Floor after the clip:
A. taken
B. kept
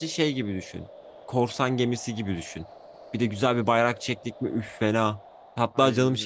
B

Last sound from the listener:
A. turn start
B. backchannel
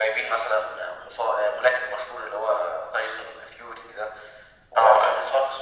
B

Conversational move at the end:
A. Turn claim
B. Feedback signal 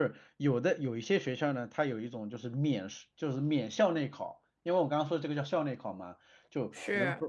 B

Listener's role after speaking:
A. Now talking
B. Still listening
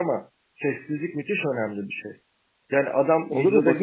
A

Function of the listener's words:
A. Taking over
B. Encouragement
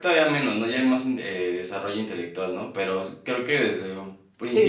A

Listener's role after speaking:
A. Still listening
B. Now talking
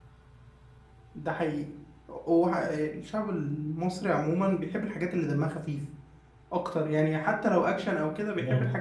A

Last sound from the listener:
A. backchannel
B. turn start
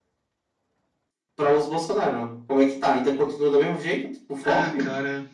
B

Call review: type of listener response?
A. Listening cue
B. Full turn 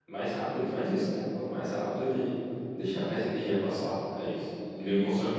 B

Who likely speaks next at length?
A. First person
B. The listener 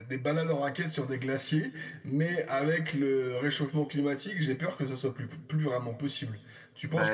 B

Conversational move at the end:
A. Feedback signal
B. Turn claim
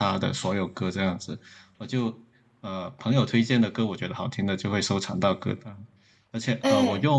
A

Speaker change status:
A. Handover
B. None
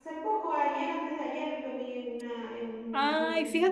A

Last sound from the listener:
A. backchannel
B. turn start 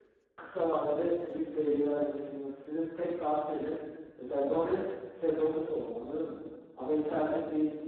A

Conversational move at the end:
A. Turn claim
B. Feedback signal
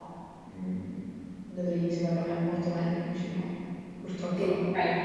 A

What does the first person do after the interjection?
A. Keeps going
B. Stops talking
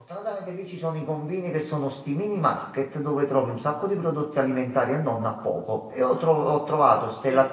A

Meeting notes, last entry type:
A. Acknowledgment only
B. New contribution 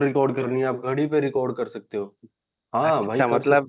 B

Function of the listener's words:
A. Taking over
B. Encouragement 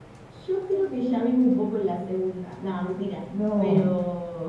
B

